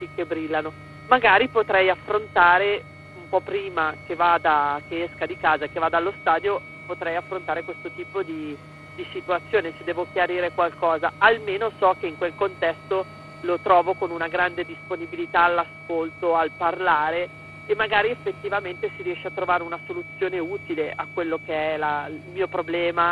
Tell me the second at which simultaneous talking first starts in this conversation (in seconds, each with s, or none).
none